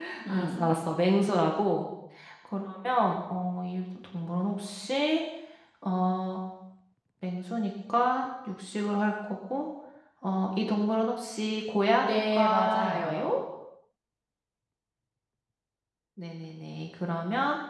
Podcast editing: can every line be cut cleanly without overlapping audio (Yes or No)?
No